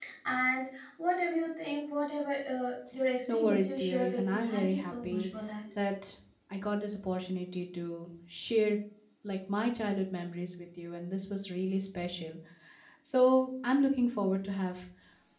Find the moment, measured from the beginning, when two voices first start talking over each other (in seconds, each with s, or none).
3.3 s